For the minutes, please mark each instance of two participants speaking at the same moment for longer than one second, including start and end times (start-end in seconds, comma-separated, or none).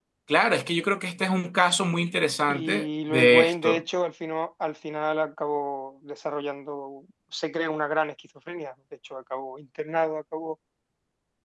2.5-3.8